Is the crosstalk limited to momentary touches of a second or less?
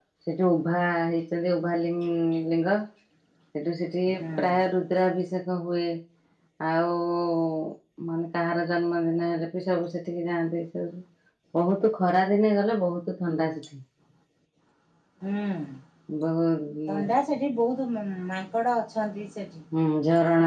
Yes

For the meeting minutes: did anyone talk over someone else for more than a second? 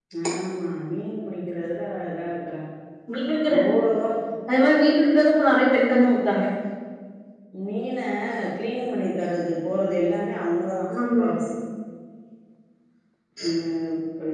No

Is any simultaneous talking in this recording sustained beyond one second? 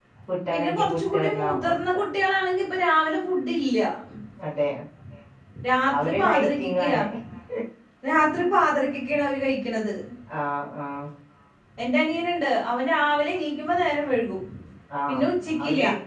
Yes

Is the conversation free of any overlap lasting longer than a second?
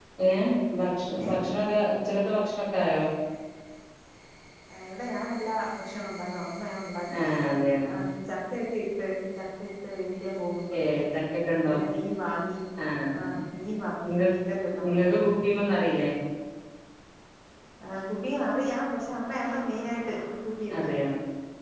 Yes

